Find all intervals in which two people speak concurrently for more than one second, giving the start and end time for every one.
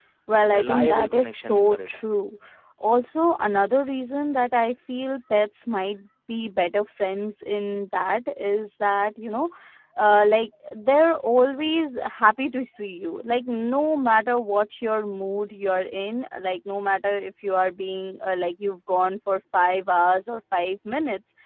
0.5-2.0

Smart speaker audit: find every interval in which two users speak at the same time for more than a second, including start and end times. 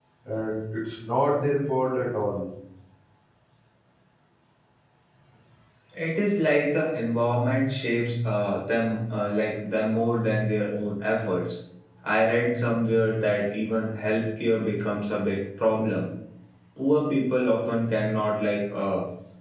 none

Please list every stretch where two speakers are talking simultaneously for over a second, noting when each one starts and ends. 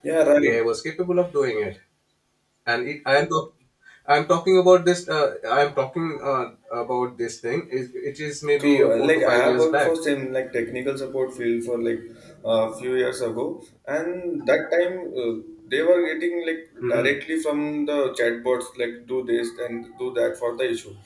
8.6-9.9

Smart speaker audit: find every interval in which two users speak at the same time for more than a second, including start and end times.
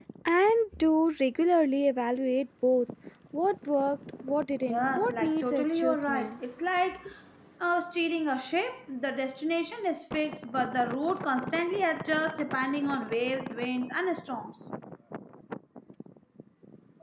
4.7-6.4

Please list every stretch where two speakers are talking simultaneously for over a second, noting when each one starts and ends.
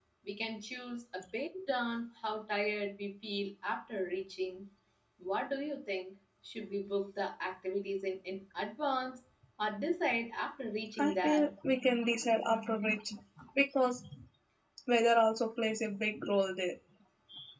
none

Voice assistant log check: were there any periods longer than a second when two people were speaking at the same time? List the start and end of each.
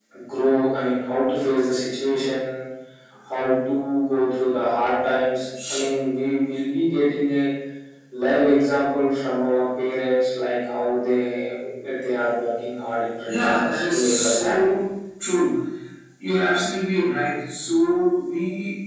13.2-14.6

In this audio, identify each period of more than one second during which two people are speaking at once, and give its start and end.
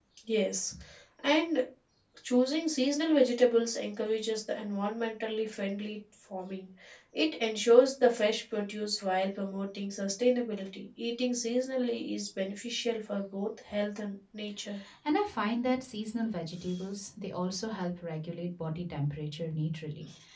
none

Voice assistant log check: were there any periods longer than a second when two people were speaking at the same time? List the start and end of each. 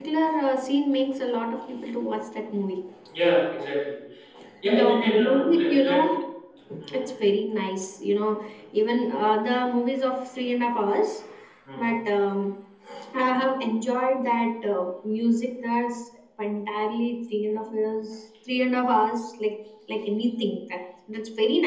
4.7-6.0

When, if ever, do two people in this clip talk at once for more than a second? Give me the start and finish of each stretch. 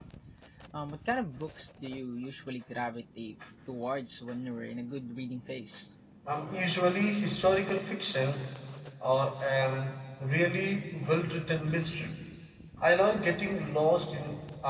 none

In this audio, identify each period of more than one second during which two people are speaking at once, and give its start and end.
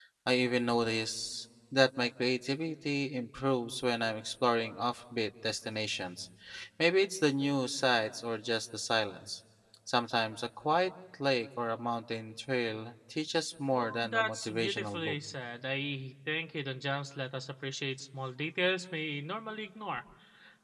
13.7-15.2

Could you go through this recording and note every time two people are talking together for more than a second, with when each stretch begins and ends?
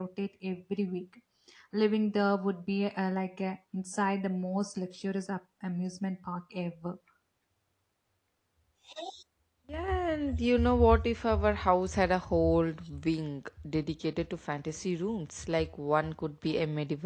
none

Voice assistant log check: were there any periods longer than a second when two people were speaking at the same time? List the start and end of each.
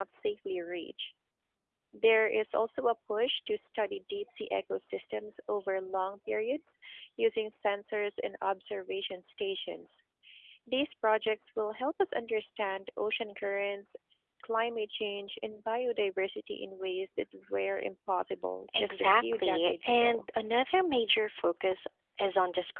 18.8-20.2

